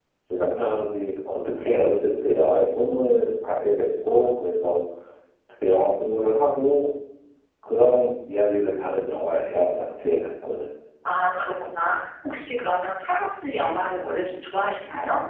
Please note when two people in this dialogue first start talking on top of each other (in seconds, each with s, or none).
none